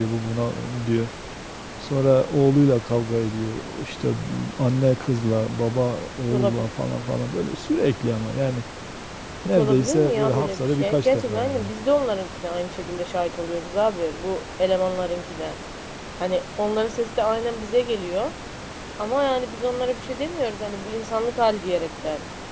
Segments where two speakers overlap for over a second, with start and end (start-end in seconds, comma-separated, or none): 9.4-11.7